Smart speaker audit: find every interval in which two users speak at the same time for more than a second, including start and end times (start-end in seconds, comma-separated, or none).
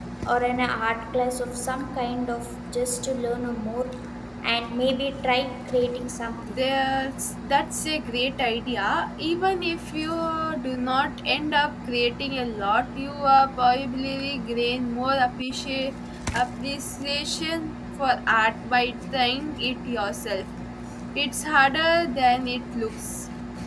none